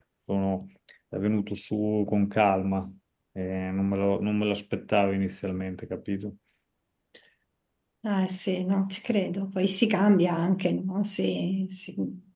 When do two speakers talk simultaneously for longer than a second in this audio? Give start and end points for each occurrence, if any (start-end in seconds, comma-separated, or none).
none